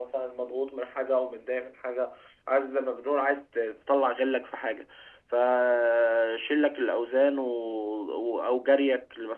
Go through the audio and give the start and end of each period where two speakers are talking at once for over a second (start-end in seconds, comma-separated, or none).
none